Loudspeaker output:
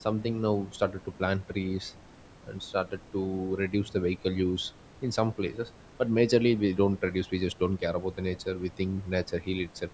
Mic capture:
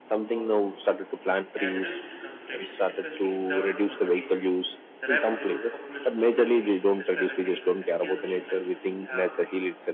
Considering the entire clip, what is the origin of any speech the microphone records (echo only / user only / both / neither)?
both